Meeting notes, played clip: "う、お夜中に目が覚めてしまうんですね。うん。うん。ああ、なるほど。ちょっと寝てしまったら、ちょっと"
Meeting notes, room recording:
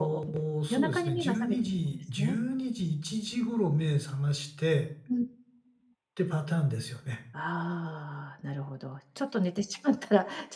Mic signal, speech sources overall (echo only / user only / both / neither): both